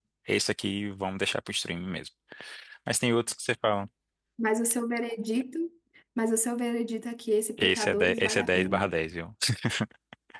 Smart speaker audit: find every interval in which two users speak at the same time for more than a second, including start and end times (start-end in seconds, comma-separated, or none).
7.6-8.9